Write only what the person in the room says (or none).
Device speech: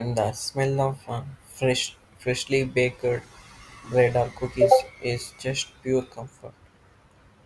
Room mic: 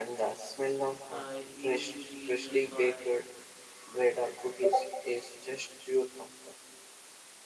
I usually just buy